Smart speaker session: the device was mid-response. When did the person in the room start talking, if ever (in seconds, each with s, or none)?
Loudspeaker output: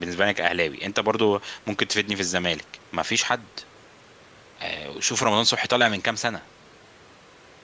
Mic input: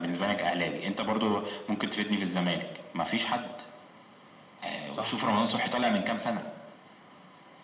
4.9 s